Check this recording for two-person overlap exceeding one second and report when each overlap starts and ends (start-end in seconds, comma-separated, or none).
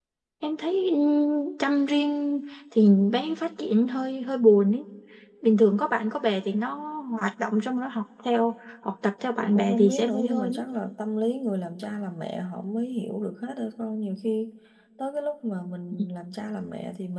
9.4-10.6